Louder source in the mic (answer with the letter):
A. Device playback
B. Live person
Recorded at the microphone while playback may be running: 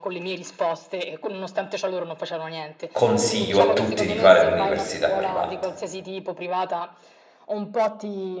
B